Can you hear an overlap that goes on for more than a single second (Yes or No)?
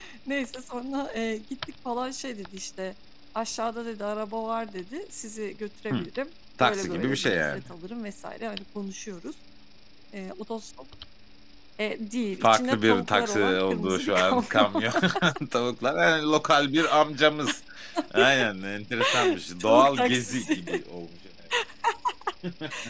Yes